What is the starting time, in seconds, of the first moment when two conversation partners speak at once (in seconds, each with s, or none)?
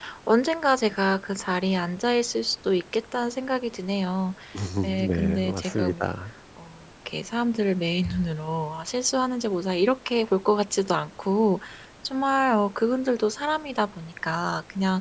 4.8 s